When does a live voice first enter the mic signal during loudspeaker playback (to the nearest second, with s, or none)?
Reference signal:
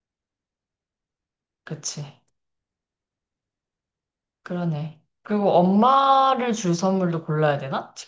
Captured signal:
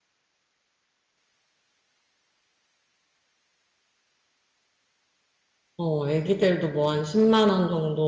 6 s